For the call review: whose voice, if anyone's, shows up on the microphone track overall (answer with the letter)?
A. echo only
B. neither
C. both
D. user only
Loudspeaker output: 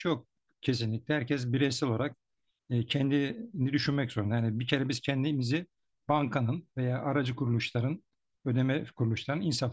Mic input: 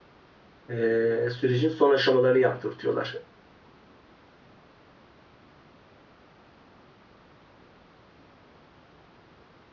D